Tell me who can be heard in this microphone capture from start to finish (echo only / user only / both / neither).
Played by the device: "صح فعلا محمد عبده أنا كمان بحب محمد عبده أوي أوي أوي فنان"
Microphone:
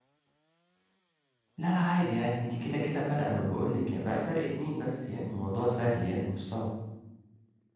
user only